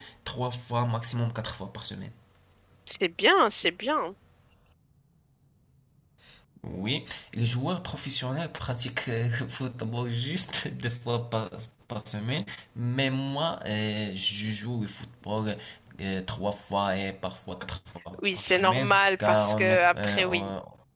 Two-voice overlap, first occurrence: 18.1 s

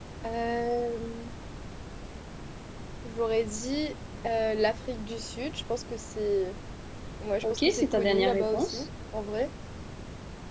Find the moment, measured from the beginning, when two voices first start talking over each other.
7.4 s

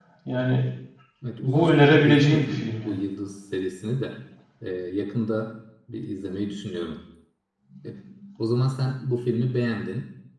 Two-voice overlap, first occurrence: 1.4 s

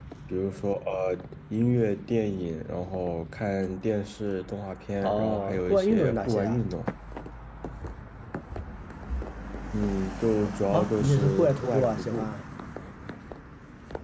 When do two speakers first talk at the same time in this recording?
5.0 s

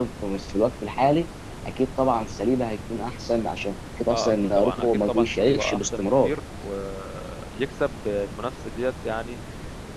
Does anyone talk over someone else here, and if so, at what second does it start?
4.1 s

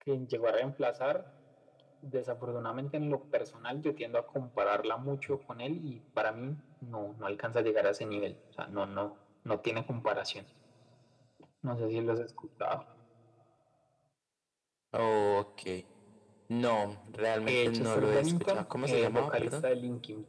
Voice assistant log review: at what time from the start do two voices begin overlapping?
17.4 s

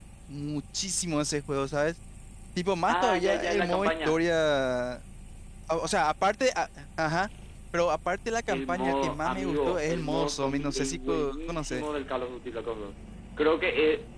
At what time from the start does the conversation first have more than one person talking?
2.9 s

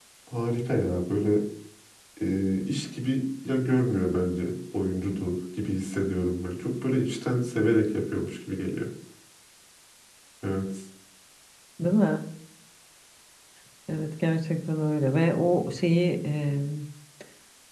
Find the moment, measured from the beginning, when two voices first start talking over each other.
none

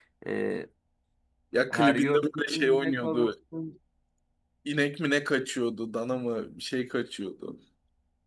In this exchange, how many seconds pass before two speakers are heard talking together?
1.7 s

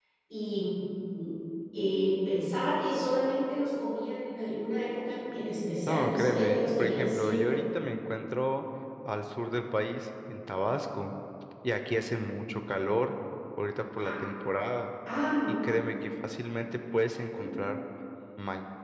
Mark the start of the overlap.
5.9 s

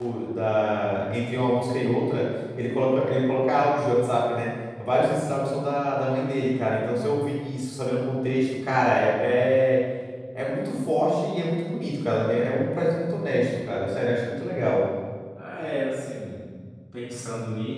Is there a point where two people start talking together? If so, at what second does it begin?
none

